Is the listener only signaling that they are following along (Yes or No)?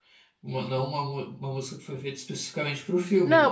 No